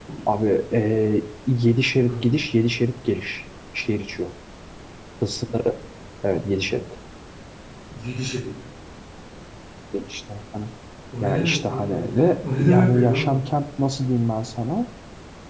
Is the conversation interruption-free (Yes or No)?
No